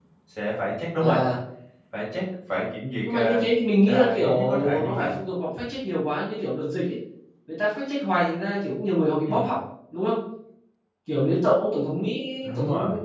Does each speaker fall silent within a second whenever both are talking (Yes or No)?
No